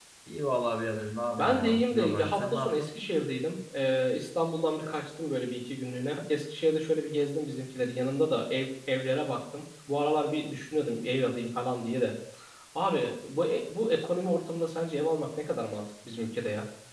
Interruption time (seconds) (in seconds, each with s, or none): 1.4 s